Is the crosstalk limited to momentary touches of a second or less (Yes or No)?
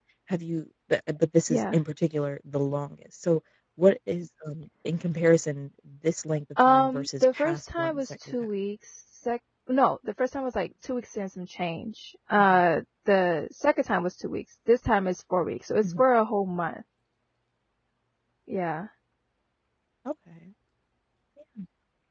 No